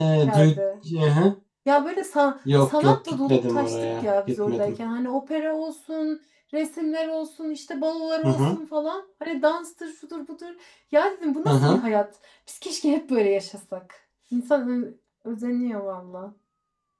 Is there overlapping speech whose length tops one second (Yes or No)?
Yes